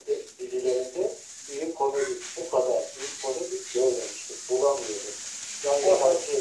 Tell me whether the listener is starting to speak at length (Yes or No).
No